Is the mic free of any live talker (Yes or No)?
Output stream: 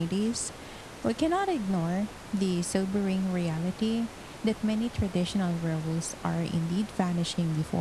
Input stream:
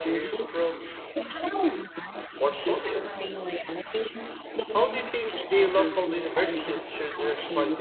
No